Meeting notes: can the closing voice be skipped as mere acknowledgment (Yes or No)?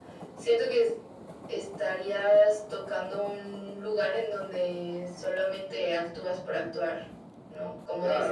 No